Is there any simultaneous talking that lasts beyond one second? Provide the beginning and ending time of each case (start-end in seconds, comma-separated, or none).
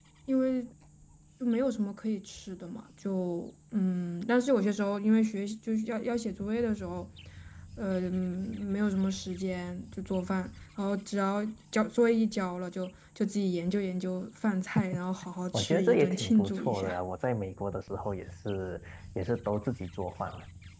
15.5-17.0